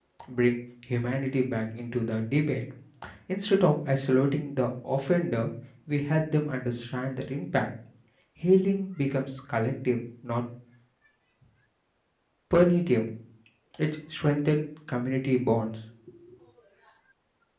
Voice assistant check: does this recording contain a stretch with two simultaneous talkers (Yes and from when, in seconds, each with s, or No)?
No